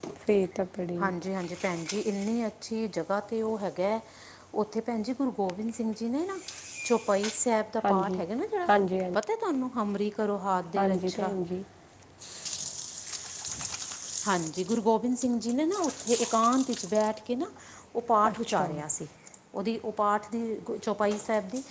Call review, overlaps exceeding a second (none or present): none